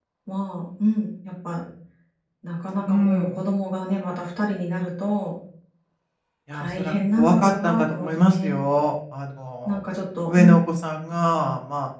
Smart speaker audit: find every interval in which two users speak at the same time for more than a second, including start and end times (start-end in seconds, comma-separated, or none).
6.5-8.6